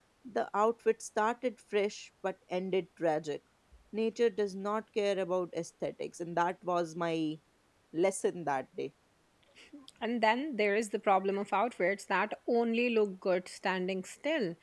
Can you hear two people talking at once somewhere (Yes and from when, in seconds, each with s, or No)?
No